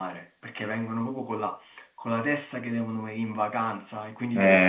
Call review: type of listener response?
taking over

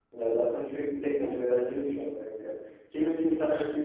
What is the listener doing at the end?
listening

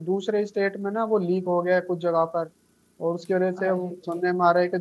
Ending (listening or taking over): listening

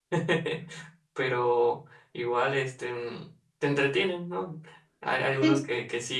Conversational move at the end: listening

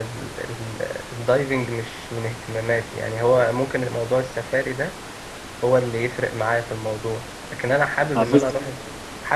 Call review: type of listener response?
listening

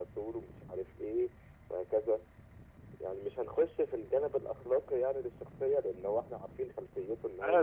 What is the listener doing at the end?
taking over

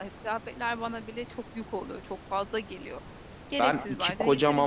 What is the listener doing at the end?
taking over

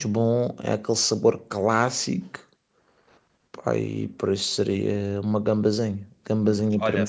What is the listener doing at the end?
taking over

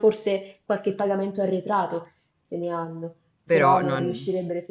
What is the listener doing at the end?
listening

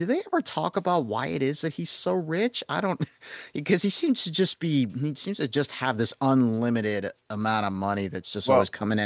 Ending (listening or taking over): listening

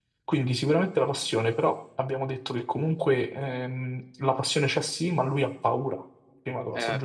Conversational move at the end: taking over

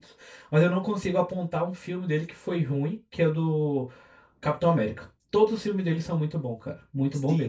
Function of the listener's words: taking over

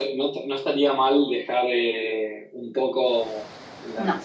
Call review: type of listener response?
listening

